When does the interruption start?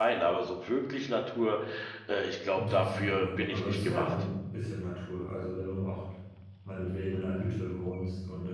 2.6 s

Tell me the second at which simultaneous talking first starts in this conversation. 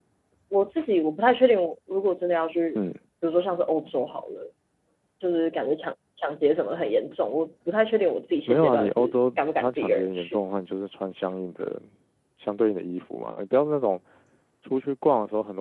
8.5 s

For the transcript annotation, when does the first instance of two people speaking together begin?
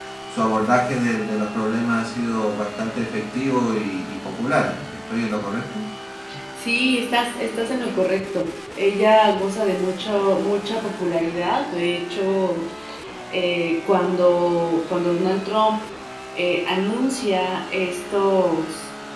none

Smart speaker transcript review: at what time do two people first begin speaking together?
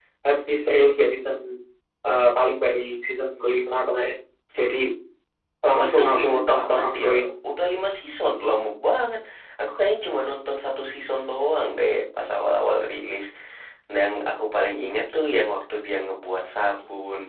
5.8 s

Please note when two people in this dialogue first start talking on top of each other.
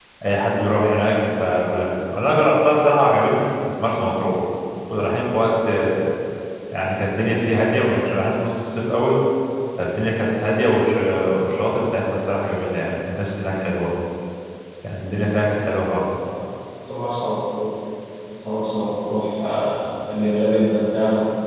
none

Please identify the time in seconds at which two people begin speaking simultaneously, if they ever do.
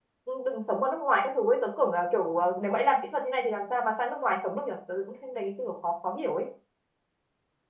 none

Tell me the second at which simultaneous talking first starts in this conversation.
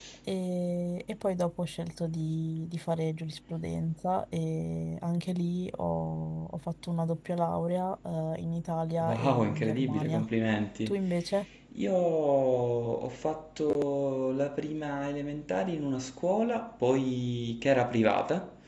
9.0 s

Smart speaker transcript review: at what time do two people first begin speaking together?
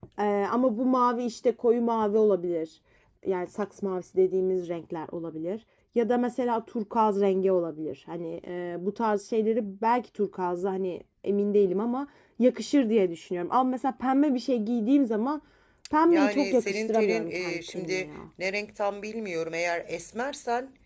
16.1 s

